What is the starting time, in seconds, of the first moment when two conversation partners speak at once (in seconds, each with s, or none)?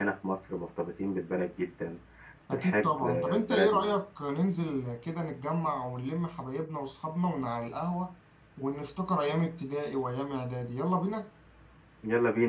2.5 s